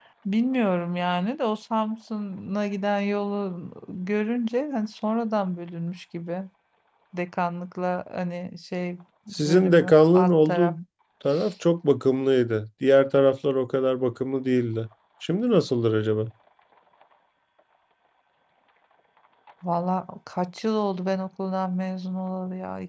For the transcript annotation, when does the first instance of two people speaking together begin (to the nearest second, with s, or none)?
9 s